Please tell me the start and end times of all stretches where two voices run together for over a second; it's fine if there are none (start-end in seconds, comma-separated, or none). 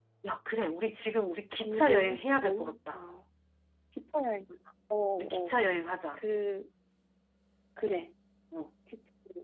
1.6-3.0